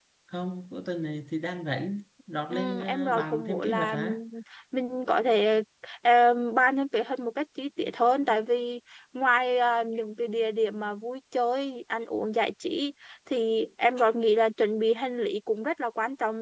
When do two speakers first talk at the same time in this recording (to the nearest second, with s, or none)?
3 s